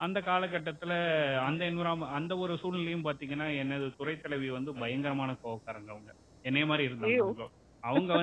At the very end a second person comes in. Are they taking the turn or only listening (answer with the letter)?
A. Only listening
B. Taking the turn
A